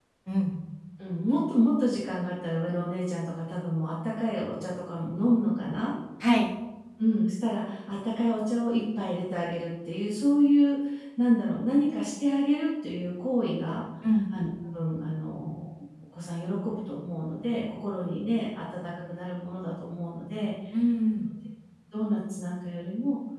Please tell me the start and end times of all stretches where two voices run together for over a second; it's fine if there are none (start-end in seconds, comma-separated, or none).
none